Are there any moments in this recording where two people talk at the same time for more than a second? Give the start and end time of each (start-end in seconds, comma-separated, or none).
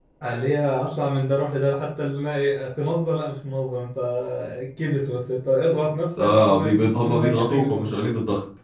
6.2-7.9